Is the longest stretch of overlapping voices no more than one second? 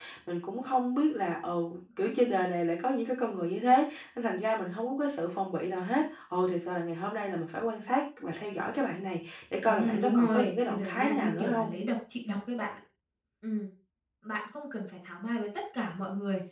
No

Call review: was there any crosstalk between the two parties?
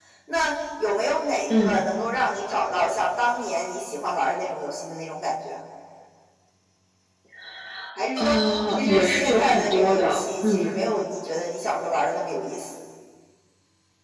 Yes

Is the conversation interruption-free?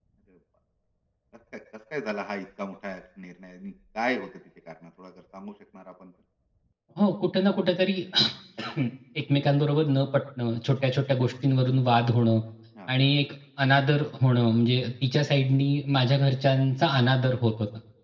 Yes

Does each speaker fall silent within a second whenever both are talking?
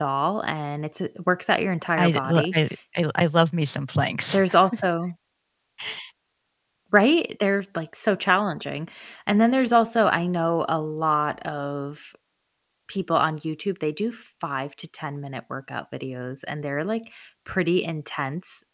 Yes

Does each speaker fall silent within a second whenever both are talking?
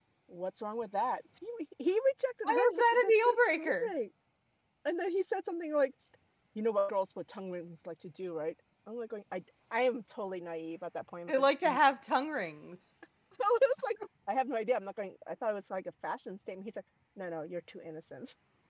No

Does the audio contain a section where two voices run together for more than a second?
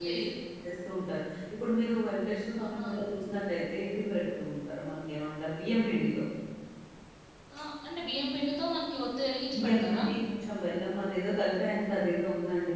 No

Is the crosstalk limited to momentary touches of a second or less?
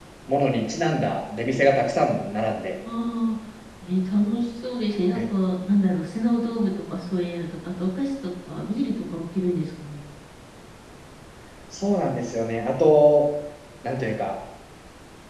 Yes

